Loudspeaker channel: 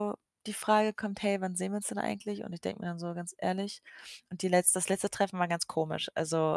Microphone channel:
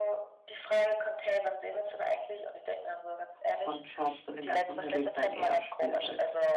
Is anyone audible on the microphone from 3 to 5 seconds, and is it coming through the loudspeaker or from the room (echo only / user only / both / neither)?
both